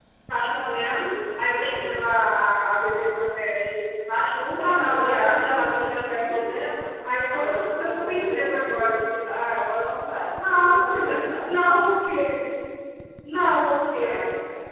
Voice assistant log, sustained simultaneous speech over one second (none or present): present